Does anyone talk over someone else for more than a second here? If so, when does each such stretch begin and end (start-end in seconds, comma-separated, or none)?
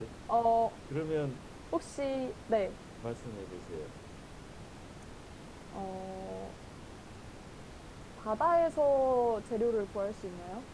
none